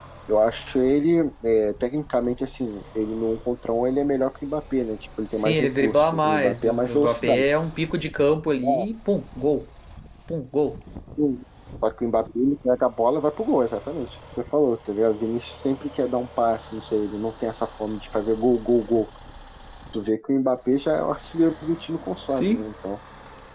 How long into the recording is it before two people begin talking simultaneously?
5 s

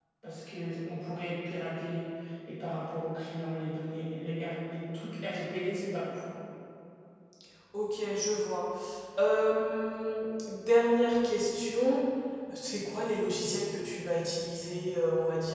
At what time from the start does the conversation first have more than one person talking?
none

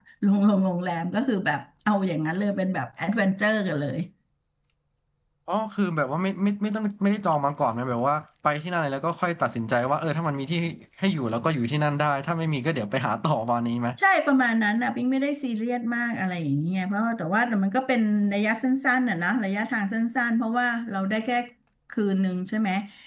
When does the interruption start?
none

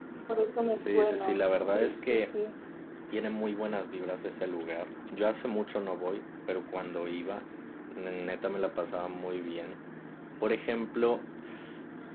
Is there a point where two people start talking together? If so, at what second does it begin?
1 s

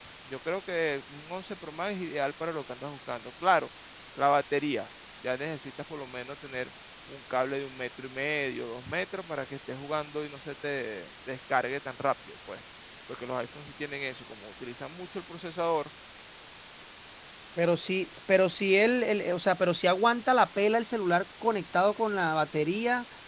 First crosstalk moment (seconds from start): none

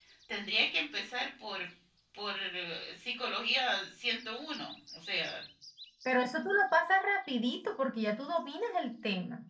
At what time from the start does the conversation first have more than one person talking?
none

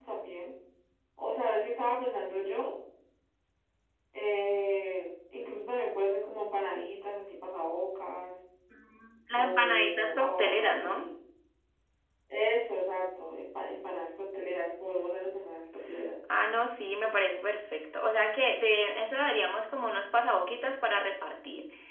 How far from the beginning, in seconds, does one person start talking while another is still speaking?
9 s

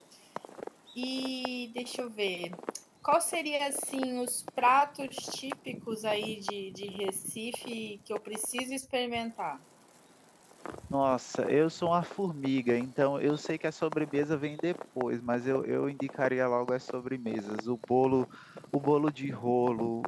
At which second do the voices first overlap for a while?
none

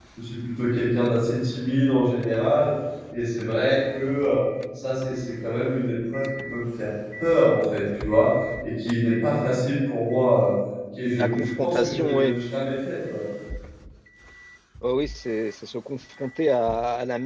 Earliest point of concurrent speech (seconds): 11 s

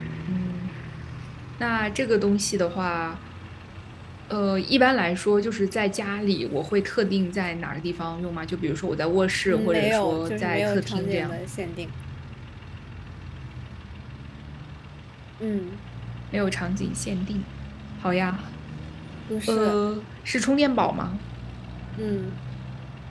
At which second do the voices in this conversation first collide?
9 s

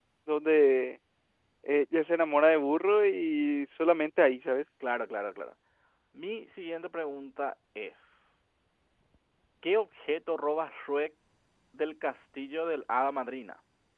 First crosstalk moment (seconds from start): none

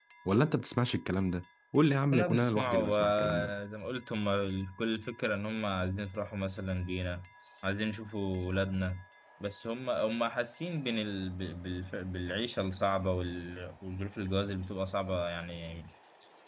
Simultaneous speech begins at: 2 s

